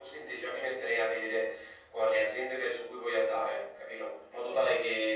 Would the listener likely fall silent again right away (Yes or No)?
Yes